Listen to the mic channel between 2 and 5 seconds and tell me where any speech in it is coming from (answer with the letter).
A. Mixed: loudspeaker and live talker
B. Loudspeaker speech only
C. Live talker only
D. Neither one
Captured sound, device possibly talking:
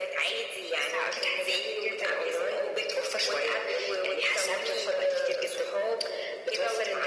B